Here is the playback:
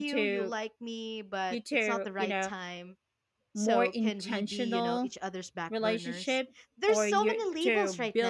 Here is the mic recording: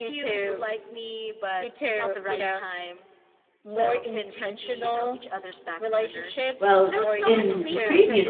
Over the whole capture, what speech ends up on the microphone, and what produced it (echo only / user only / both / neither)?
both